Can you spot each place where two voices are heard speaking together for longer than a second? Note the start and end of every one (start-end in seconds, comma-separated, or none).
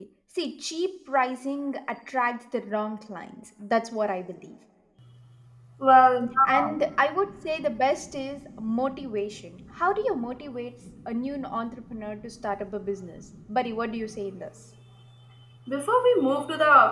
none